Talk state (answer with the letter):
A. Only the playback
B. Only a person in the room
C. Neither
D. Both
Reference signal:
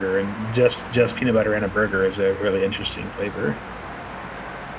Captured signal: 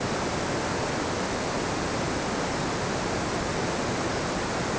C